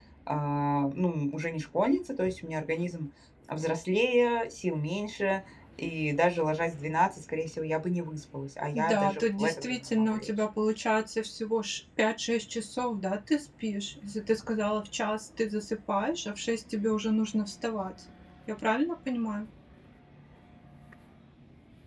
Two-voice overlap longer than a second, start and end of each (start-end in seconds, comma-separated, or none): 8.7-10.3